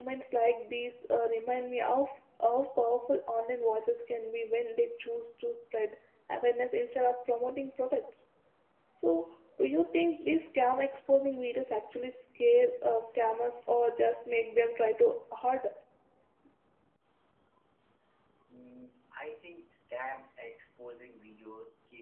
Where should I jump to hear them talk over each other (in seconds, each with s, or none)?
none